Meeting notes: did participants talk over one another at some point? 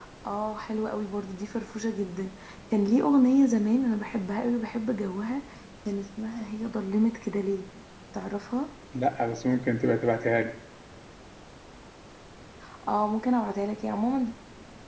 No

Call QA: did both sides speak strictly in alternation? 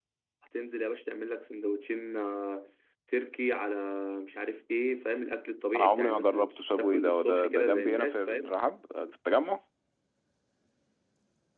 No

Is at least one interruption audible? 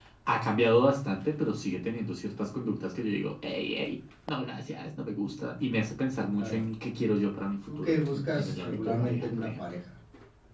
Yes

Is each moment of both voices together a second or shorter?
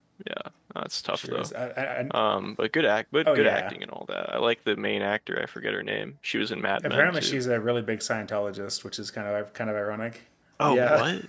Yes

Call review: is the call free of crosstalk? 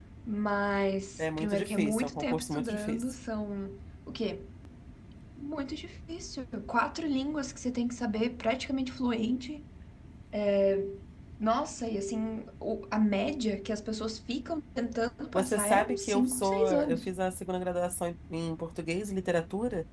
No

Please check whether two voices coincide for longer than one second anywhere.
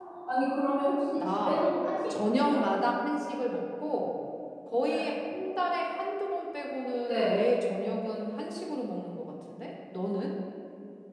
No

